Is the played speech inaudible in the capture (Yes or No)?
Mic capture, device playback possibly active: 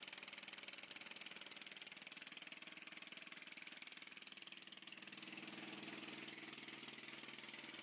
Yes